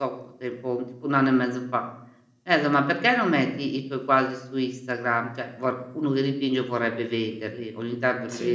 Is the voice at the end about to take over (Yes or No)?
No